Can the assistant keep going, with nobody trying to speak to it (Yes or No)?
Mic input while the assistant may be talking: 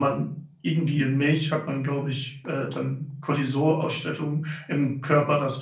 No